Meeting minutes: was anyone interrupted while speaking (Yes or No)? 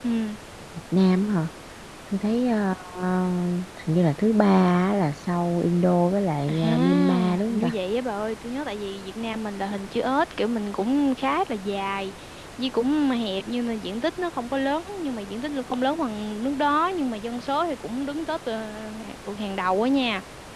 Yes